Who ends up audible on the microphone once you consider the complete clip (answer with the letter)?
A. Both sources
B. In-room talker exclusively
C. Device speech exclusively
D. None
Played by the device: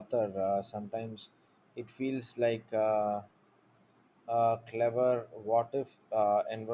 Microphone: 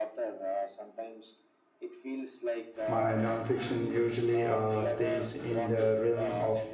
A